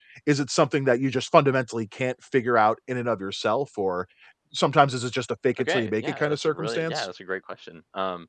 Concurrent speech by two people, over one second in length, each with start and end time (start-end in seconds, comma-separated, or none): 5.6-7.1